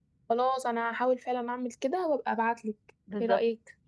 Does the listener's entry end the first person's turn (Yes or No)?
Yes